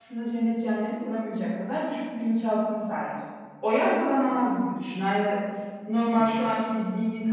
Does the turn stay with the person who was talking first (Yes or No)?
Yes